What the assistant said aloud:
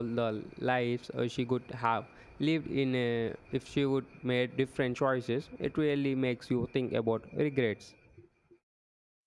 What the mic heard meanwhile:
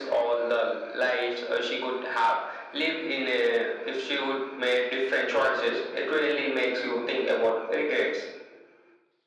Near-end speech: none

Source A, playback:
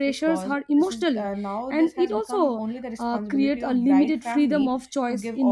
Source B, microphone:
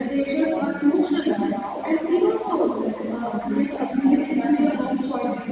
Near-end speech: none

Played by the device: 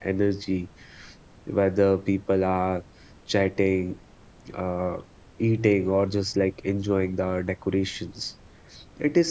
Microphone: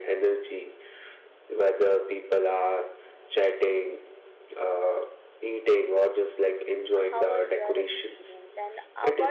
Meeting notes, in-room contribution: present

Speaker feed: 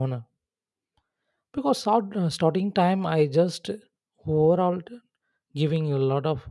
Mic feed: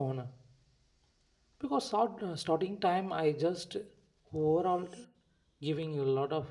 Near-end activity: none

